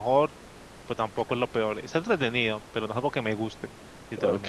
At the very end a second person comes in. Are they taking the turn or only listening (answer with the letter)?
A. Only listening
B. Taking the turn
B